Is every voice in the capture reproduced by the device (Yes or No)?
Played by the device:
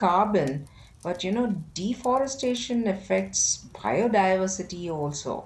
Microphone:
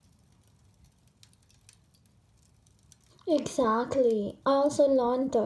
No